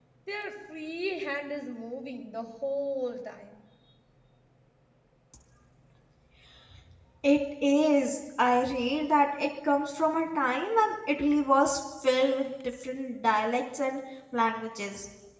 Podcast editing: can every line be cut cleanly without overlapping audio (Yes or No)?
Yes